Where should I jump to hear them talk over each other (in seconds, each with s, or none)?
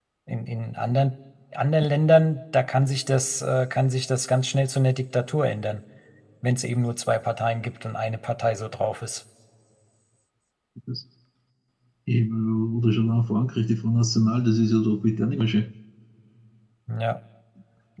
none